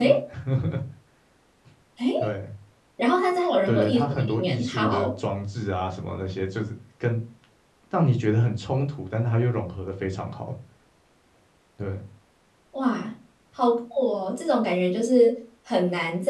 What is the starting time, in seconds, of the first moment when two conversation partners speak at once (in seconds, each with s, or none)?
3.7 s